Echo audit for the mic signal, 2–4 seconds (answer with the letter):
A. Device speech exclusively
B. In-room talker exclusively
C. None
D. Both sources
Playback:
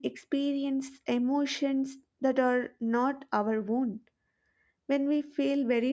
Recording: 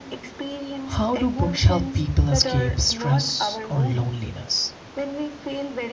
D